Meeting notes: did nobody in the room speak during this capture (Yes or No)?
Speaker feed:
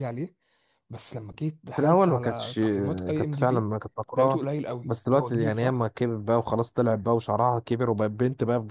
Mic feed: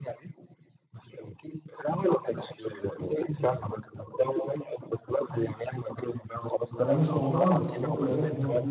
No